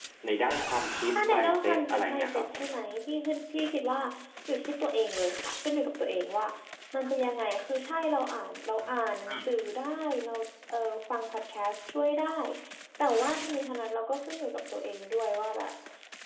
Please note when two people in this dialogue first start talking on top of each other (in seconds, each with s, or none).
1.1 s